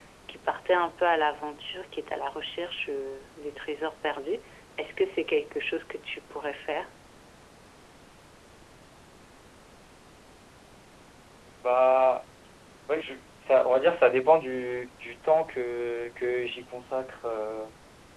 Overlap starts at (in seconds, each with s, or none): none